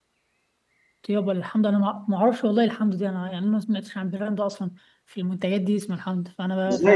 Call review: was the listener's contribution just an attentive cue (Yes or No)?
No